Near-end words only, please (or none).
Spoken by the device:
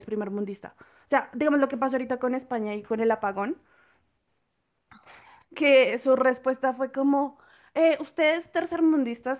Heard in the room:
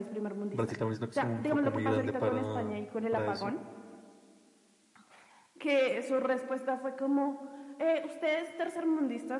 Brasil también siento que es un foco muy grande para, para eso.